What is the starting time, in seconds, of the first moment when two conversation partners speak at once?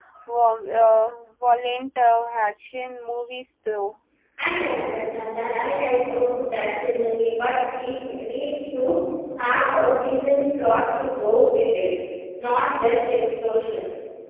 none

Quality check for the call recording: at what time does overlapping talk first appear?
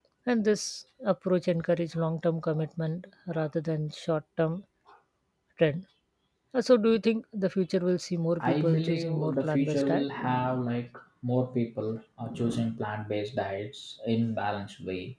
8.4 s

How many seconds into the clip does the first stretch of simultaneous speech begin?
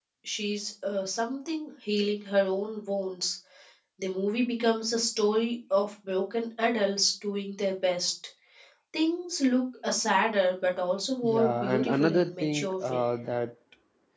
11.2 s

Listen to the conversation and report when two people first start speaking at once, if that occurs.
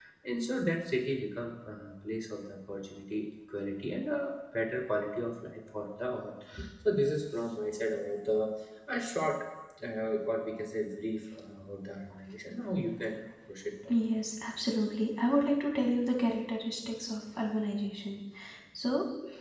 none

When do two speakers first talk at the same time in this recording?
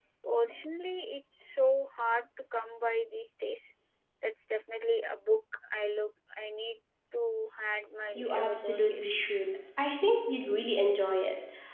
8.1 s

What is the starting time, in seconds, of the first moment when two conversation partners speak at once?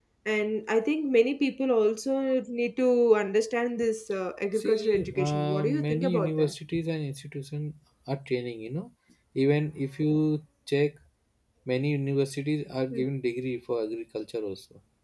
4.6 s

